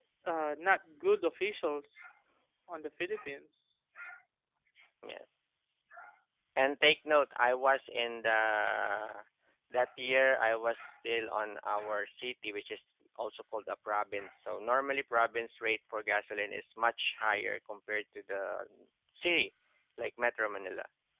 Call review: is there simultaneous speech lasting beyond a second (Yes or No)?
No